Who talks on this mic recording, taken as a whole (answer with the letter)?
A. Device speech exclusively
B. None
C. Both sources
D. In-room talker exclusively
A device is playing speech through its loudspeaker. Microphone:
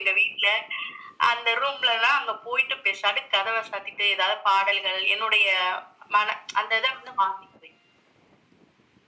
A